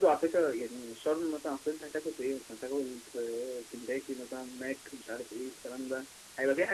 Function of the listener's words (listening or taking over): listening